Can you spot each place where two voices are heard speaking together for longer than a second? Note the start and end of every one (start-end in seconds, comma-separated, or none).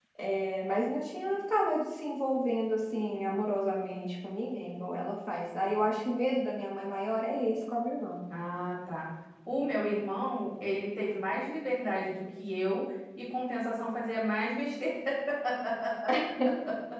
none